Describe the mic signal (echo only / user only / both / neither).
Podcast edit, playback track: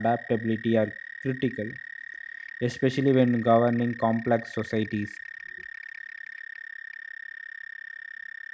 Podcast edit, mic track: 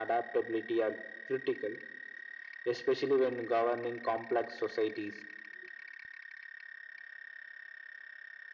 echo only